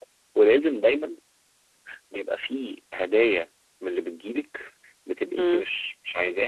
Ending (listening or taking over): listening